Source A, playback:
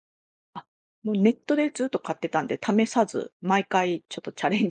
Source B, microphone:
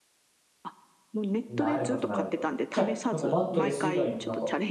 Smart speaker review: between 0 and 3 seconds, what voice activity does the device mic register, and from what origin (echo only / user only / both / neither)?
both